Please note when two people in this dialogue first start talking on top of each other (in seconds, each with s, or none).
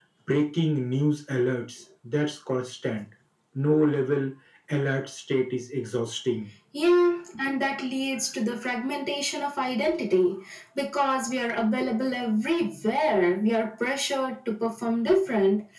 none